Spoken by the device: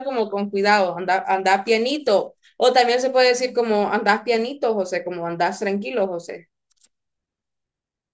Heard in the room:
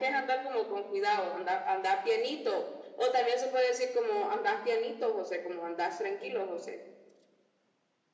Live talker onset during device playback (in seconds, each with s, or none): none